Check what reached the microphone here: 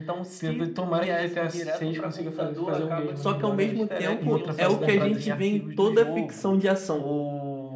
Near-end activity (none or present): present